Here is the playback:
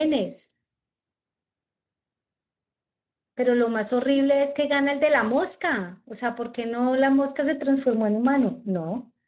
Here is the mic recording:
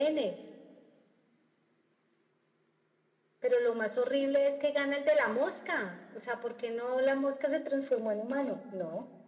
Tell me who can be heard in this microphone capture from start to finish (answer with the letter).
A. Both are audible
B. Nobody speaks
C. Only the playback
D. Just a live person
C